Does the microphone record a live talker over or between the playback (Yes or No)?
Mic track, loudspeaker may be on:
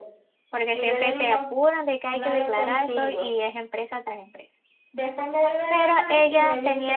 Yes